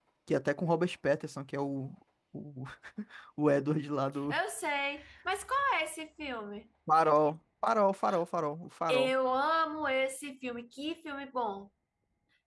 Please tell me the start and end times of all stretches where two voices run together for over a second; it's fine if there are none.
none

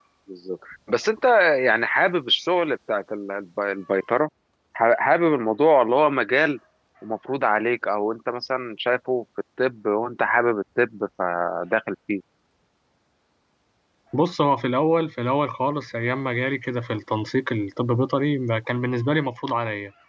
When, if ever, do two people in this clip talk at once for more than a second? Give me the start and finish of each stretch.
none

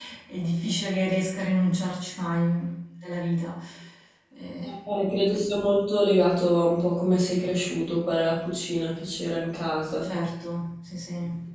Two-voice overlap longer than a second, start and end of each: none

